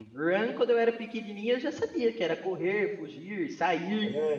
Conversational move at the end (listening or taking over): listening